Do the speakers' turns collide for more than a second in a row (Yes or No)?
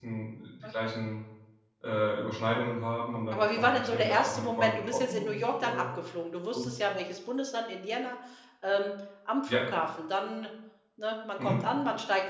Yes